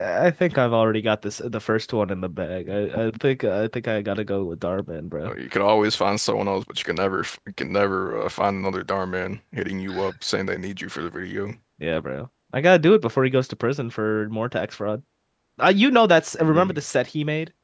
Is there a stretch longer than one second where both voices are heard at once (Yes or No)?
No